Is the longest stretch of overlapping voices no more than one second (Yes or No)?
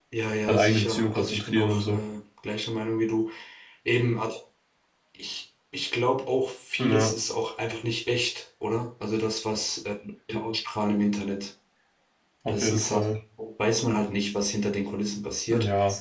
No